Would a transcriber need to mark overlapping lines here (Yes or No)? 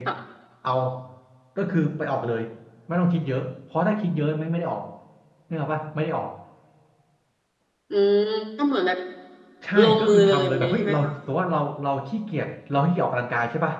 Yes